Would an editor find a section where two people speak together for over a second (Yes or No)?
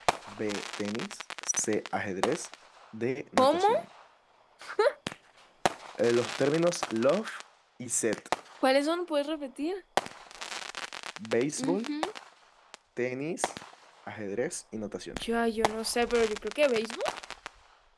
No